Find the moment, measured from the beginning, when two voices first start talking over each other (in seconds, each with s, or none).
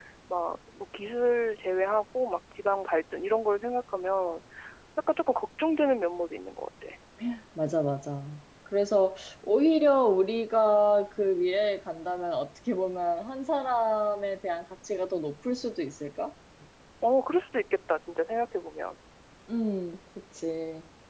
none